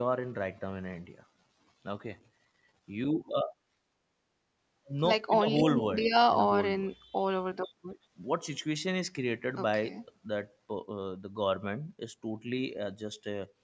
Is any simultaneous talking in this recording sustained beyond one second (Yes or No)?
Yes